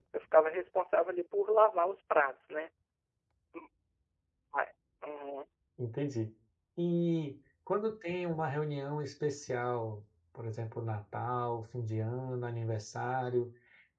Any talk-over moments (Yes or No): No